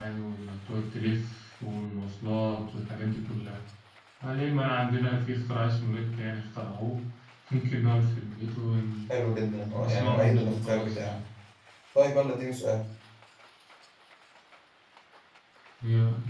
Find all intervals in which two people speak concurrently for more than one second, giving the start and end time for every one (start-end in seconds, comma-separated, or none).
9.8-11.2